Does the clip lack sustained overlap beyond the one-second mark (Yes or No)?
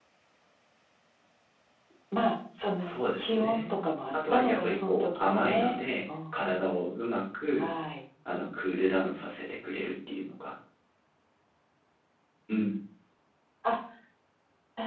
No